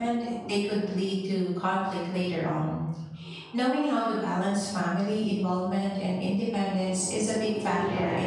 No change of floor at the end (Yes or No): No